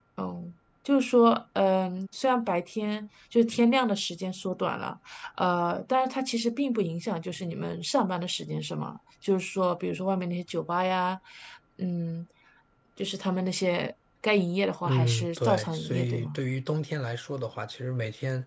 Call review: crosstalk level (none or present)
present